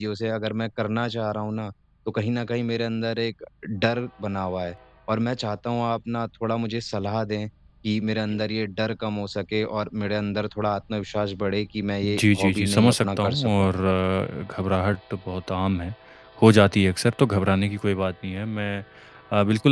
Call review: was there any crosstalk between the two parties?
Yes, from 12.0 s

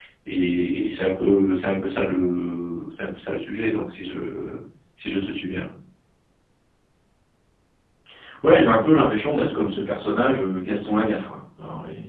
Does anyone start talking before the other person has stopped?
No

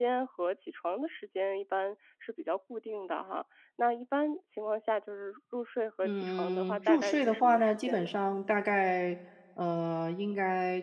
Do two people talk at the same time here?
Yes, from 6.0 s

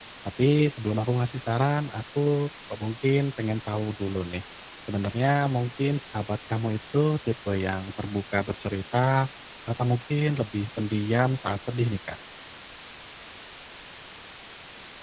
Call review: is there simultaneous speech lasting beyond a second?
No

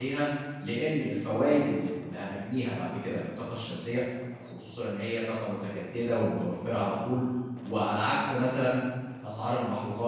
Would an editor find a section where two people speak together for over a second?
No

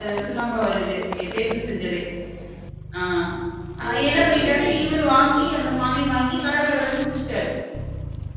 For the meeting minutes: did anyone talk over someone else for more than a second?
Yes, from 3.9 s

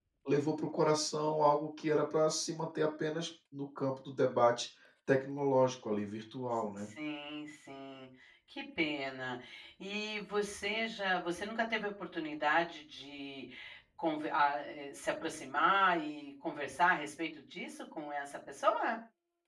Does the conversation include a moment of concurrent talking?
No

